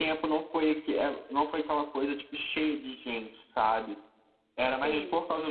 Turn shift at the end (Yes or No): No